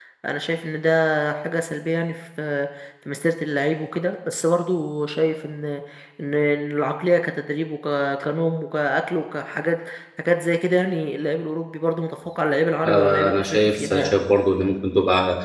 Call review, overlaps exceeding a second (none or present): present